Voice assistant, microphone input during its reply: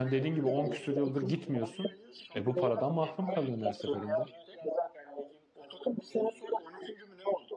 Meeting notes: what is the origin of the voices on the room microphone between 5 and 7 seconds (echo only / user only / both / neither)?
echo only